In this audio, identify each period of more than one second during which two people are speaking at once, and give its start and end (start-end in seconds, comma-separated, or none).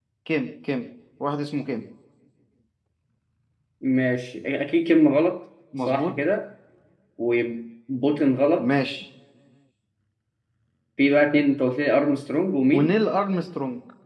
none